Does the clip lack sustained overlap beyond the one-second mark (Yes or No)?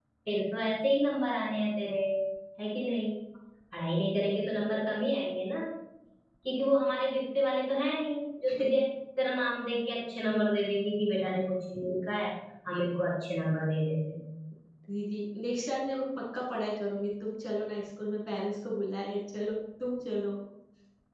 Yes